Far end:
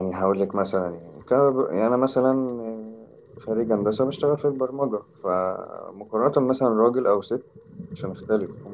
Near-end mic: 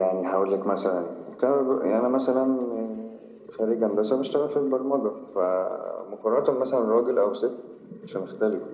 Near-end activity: none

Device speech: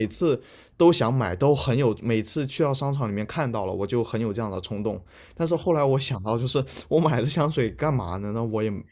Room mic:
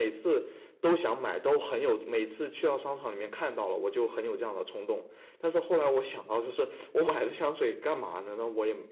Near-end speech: none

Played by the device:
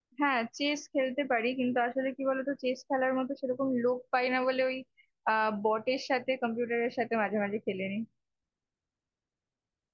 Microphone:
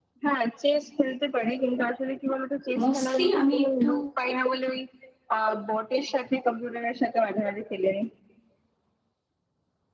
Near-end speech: present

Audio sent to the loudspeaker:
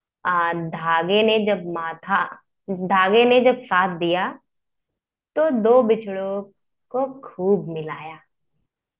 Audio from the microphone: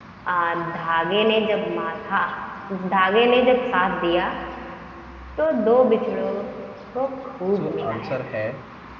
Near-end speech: present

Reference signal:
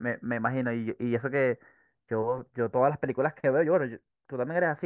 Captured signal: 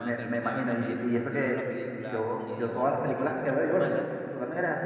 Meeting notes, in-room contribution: present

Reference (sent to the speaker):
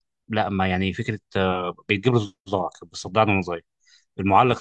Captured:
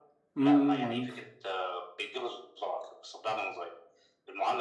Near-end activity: present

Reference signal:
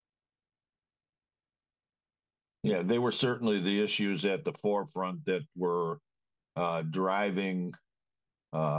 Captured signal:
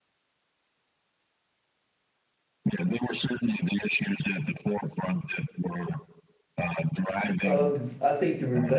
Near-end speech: present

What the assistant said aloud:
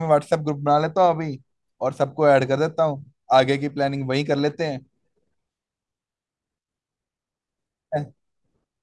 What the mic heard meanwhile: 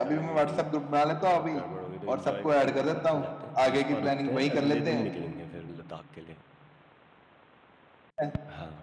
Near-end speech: present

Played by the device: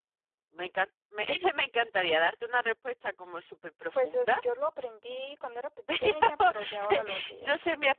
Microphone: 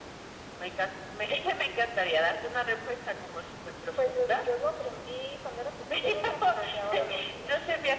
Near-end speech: none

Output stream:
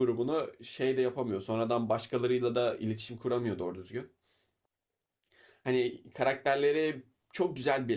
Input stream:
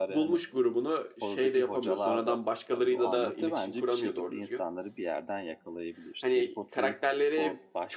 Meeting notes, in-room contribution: present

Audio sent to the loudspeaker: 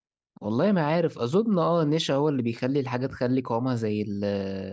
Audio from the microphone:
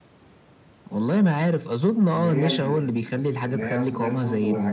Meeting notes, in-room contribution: present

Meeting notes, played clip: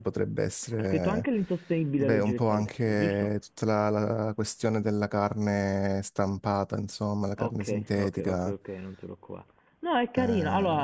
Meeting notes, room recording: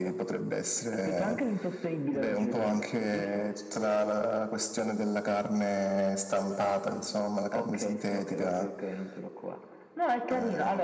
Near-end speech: none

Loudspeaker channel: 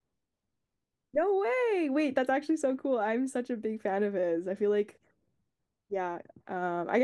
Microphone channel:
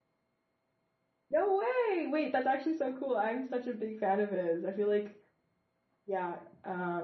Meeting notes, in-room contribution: none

